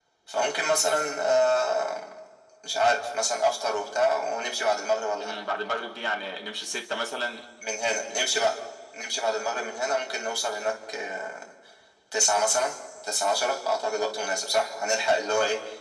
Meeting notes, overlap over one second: none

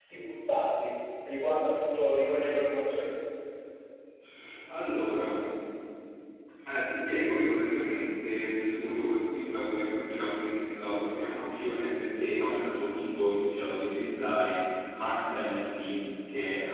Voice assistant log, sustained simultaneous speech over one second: none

